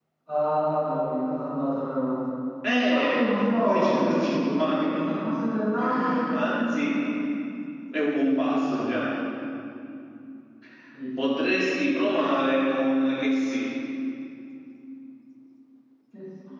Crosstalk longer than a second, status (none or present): present